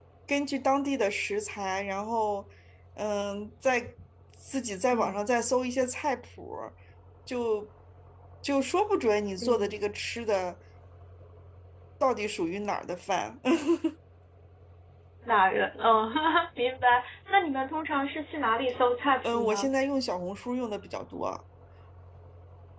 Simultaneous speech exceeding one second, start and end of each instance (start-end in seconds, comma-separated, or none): none